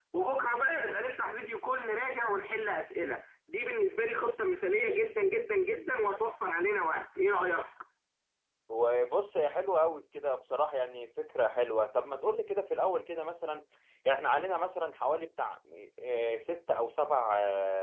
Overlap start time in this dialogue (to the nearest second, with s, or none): none